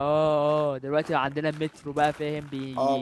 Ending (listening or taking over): taking over